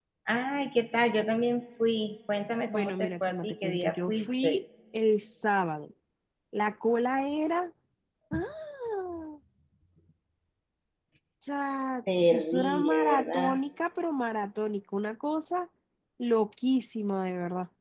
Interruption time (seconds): 2.7 s

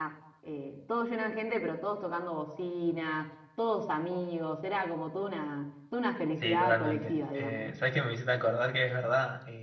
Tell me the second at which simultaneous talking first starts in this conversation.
6.4 s

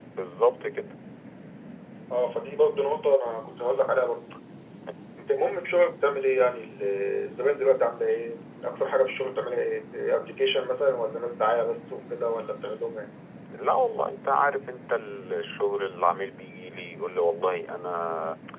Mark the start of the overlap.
none

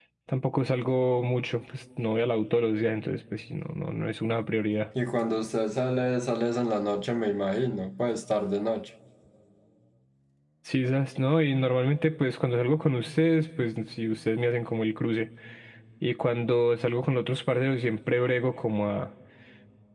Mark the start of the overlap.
none

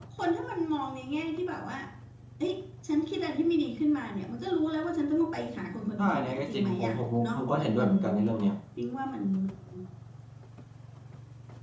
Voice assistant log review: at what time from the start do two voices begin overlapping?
6.0 s

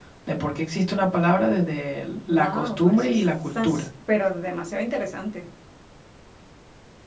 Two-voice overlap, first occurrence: 2.1 s

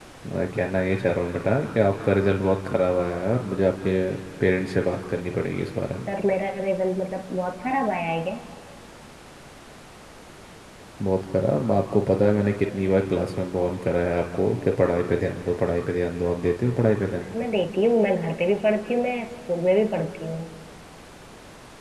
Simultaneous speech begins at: none

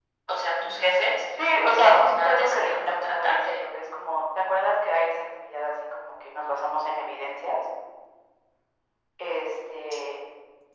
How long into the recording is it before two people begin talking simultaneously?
1.6 s

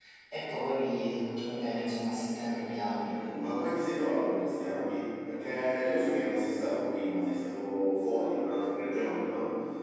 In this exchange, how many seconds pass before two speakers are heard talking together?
none

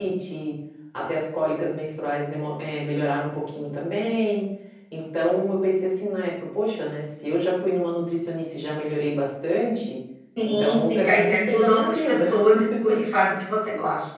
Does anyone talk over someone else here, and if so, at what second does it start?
10.4 s

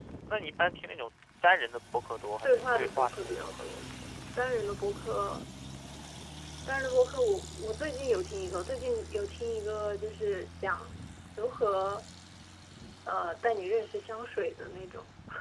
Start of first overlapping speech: 2.4 s

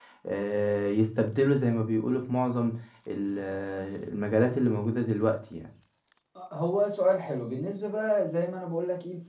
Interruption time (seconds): none

